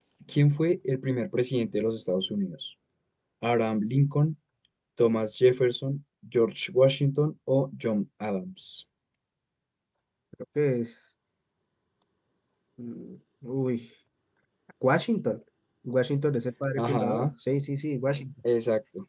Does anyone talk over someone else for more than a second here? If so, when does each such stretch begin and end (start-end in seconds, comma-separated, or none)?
none